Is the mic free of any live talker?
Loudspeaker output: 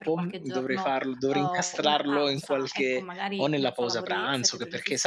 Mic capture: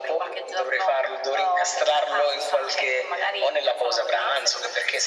Yes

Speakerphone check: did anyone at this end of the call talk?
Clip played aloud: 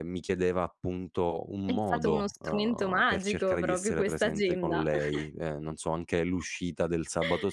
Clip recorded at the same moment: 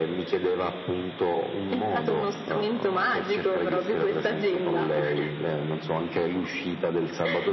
No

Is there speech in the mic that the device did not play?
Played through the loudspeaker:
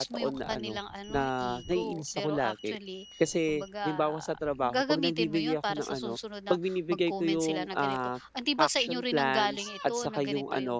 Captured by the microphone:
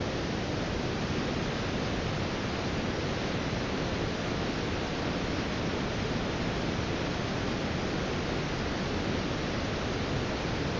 No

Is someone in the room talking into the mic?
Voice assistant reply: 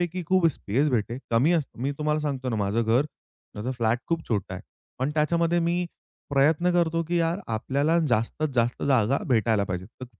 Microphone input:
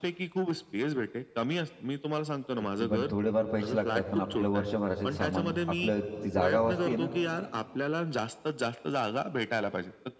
Yes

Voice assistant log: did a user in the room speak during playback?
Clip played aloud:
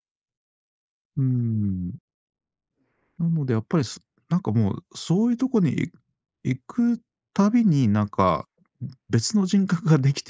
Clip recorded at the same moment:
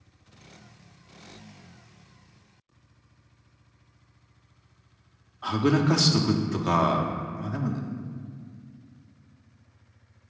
Yes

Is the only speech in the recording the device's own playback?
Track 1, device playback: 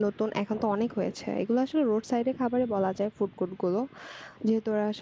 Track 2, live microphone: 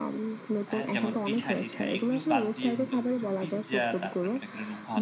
No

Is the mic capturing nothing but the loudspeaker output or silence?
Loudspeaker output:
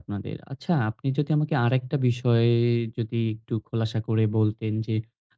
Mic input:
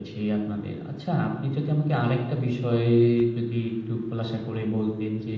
Yes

